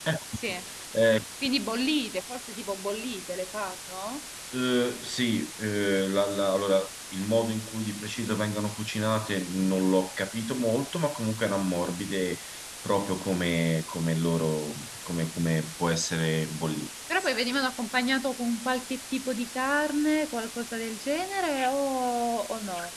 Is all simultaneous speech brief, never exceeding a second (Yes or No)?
Yes